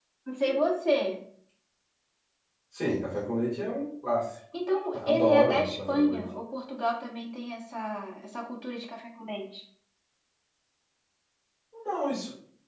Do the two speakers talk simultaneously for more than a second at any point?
Yes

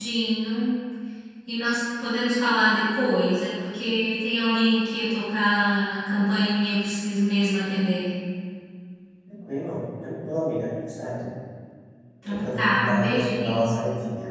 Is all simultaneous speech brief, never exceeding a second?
No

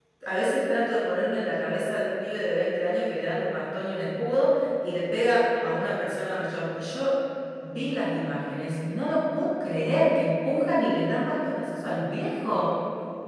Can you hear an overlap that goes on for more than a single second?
No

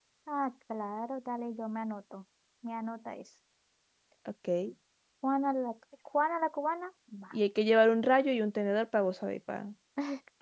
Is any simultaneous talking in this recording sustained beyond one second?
No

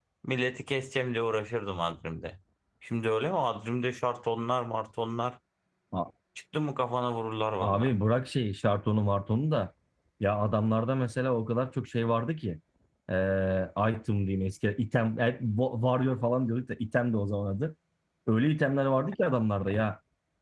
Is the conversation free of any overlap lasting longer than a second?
Yes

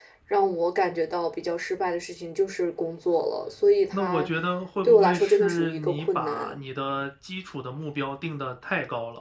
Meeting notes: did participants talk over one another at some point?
Yes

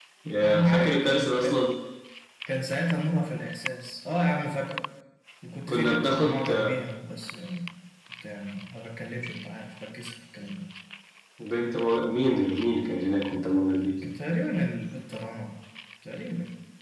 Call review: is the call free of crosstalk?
No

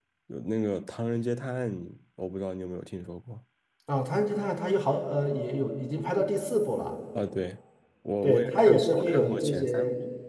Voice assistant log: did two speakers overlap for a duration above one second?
Yes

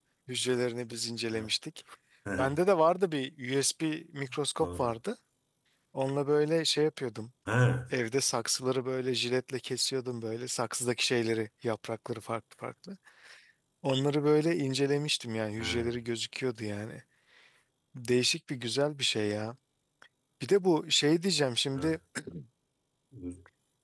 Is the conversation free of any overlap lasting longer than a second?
Yes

